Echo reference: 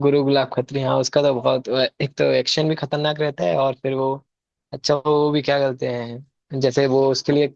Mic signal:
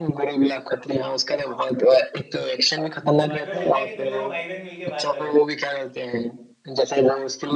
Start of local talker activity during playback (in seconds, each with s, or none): 3.1 s